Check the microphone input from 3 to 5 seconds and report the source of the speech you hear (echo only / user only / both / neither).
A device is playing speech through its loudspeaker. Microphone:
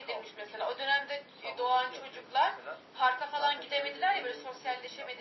echo only